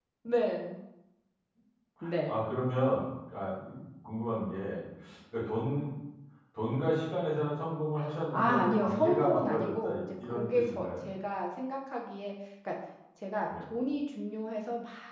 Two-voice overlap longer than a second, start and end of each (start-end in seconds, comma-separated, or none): 8.3-10.9